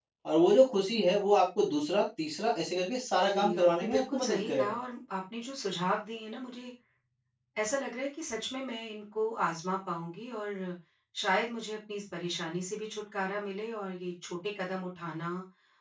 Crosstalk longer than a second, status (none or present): present